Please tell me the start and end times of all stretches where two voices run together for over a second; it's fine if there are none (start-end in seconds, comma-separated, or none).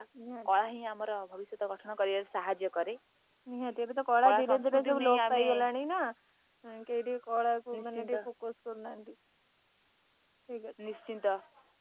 4.2-5.5